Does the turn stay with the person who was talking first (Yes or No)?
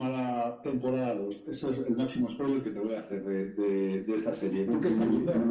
No